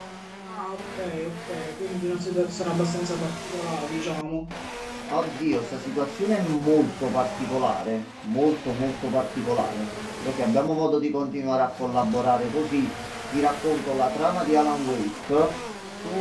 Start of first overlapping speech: none

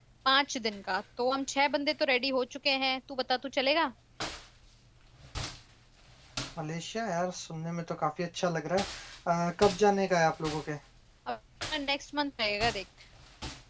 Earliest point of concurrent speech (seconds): none

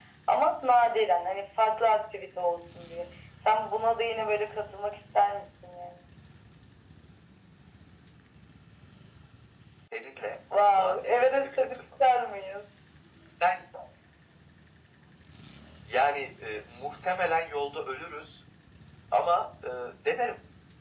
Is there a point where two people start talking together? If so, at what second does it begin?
11 s

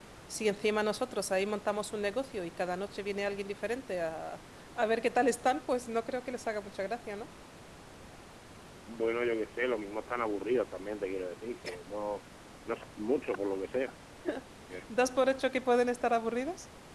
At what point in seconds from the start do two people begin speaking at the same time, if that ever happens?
none

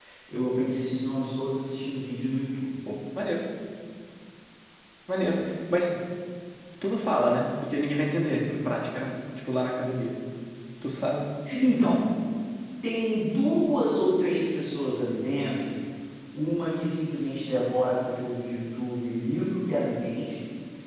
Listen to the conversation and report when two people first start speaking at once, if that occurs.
none

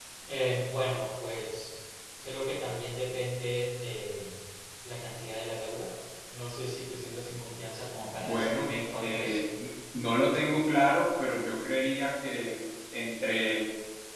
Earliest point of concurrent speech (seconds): 8 s

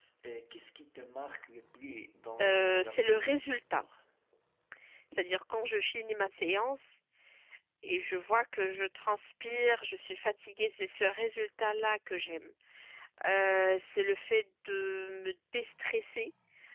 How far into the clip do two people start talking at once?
2 s

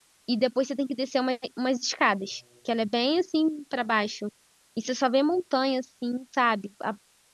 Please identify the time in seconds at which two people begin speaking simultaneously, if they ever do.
none

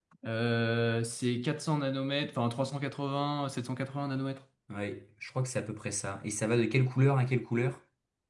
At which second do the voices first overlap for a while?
none

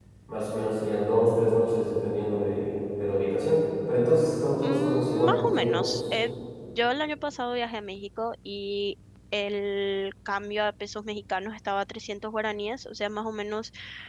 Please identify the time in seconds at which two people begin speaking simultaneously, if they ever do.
5 s

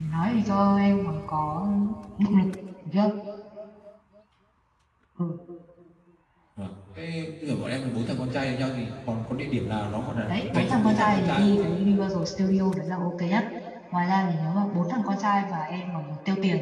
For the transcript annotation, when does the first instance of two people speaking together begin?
10 s

